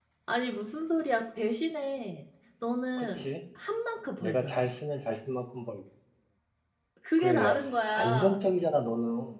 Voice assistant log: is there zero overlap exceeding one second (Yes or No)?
Yes